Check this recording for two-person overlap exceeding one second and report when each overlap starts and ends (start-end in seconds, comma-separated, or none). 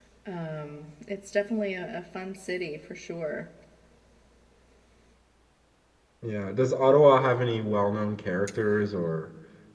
none